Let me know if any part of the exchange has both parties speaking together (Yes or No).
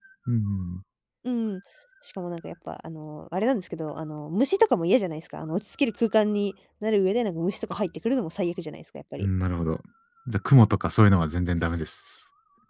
No